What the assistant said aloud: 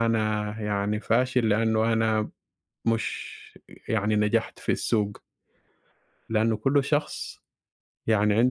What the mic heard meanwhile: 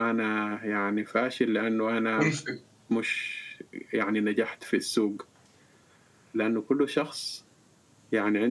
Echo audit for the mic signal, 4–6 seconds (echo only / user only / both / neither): echo only